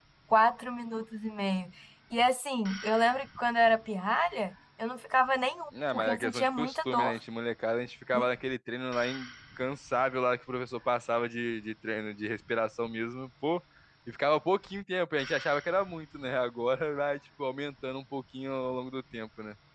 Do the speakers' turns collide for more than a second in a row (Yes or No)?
Yes